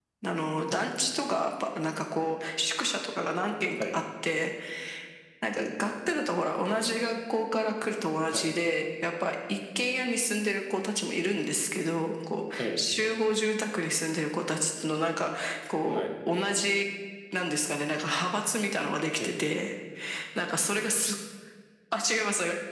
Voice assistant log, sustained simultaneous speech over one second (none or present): none